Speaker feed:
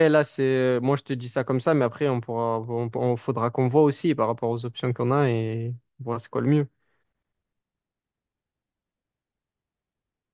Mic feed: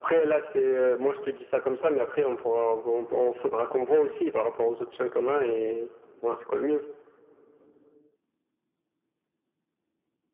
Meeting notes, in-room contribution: none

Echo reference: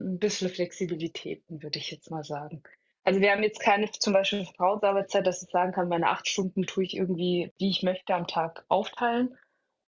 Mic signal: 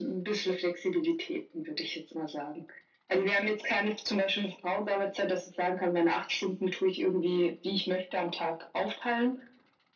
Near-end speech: none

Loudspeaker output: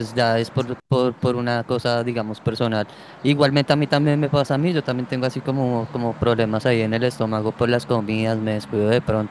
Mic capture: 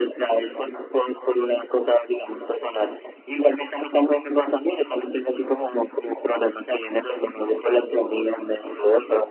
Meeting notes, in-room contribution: none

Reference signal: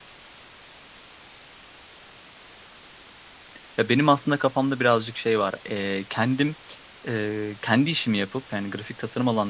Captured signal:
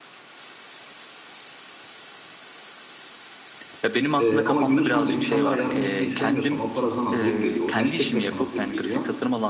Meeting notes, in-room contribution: present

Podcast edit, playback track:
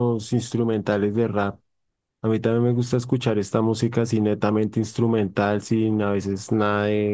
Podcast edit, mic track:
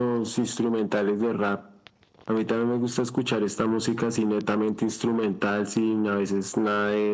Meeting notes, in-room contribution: none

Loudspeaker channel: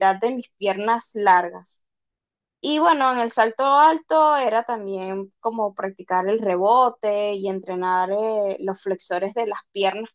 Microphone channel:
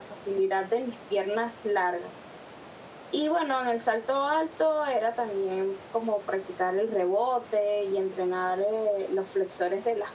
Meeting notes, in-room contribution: none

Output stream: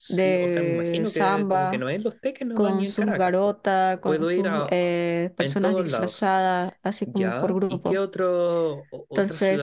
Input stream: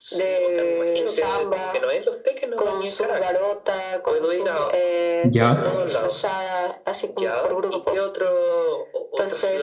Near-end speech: present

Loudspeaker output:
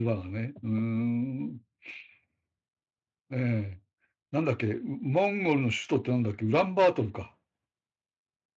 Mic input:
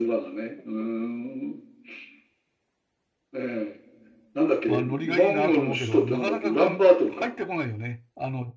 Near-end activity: present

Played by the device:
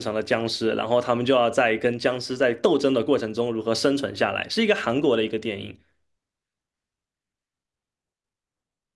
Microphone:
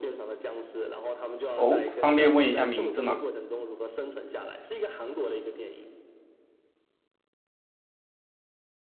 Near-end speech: present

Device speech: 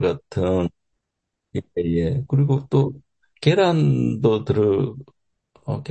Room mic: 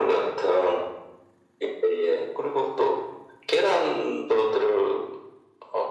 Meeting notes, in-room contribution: none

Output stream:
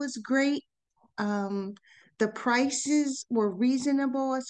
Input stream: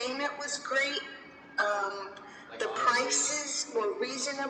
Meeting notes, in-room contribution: present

